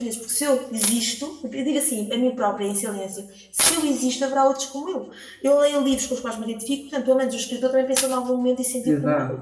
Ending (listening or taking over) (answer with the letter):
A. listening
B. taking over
B